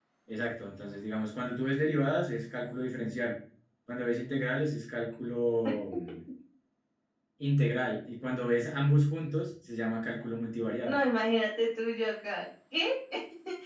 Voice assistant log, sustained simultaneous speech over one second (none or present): none